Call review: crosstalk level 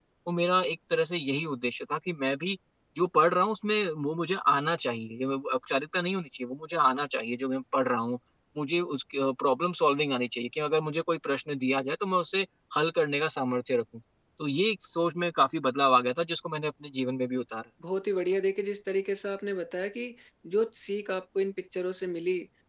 none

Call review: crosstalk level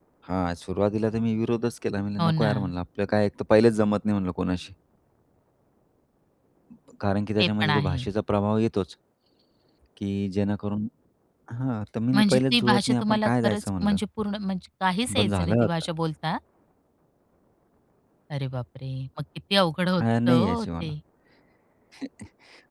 present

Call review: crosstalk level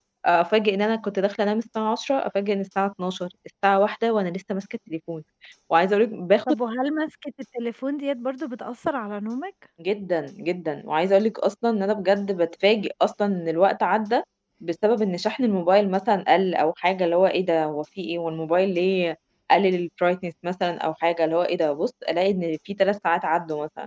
none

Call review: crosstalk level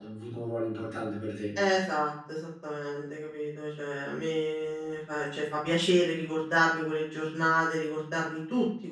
none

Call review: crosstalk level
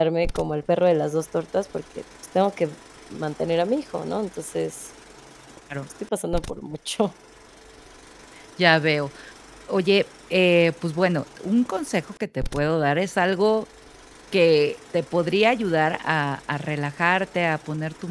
none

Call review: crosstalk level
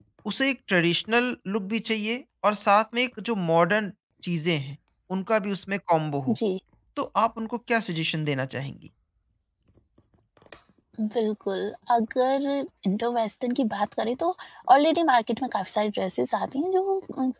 none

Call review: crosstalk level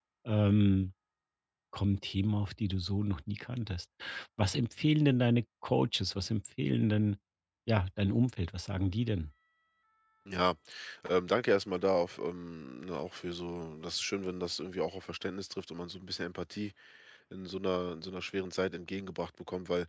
none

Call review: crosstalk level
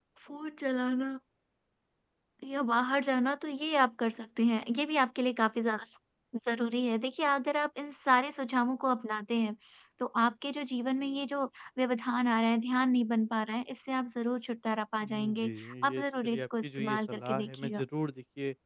present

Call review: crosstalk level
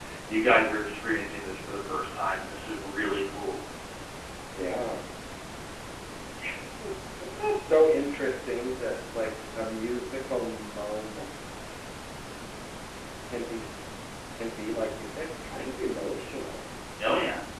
none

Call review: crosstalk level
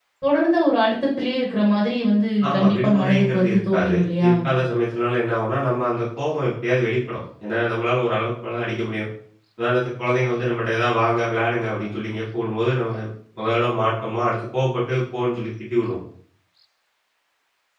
present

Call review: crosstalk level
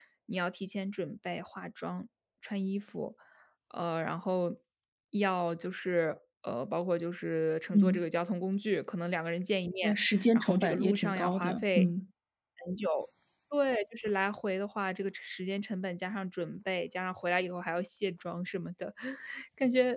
present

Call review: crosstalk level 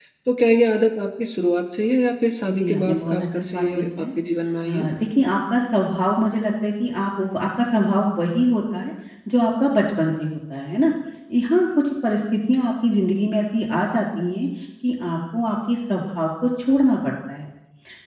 present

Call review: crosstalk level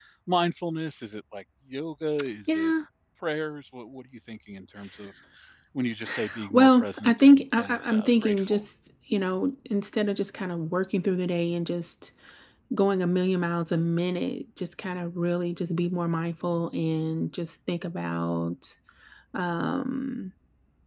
present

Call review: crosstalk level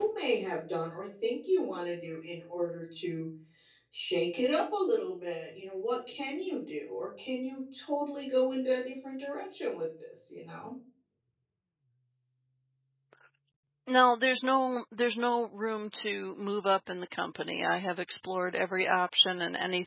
none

